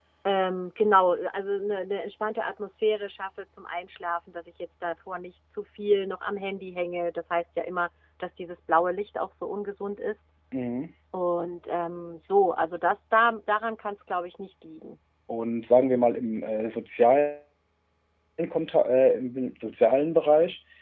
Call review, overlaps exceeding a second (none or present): none